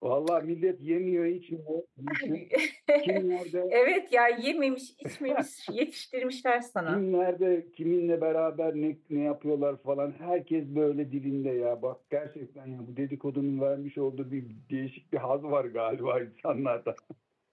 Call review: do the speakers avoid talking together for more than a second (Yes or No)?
Yes